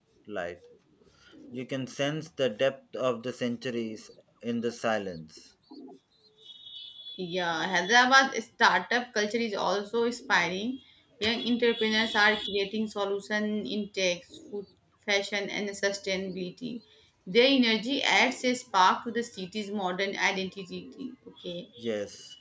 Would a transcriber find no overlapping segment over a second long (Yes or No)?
Yes